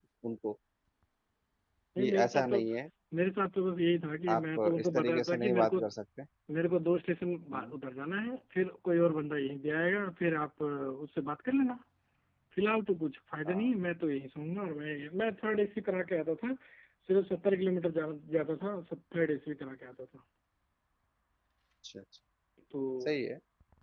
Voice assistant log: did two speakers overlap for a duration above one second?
Yes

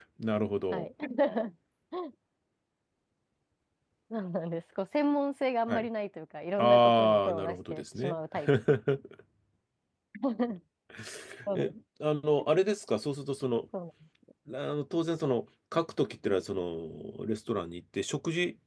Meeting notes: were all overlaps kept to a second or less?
No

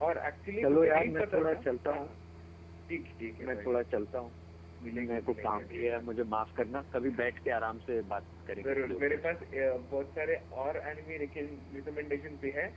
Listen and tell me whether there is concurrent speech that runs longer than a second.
Yes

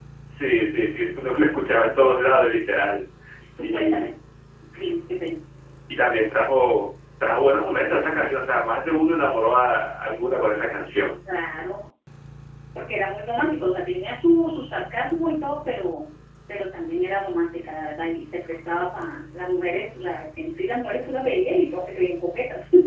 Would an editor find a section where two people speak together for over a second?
No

